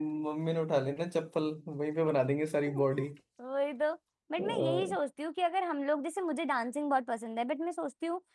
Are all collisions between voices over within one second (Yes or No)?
Yes